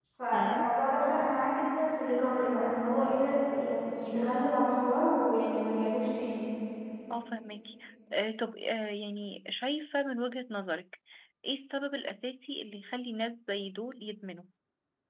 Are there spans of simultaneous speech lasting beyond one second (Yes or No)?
No